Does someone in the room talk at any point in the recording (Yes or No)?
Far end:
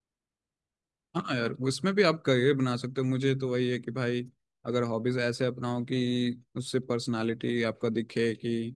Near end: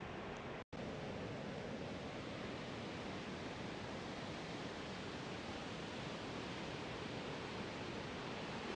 No